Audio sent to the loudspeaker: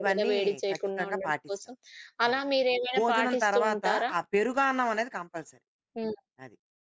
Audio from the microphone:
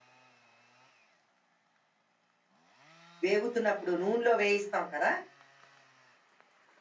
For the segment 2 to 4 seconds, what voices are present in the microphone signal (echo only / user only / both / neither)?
user only